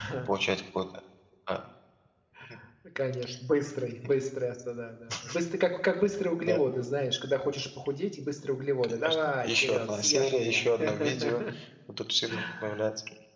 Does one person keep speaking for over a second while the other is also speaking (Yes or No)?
Yes